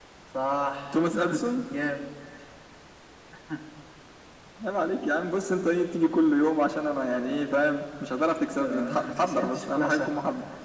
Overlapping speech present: Yes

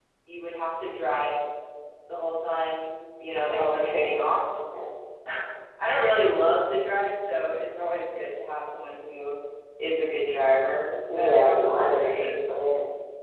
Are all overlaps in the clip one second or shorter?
No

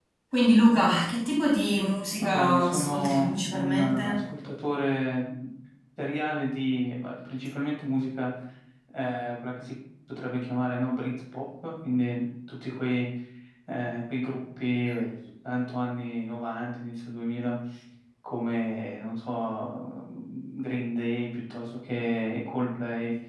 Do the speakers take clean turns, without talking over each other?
No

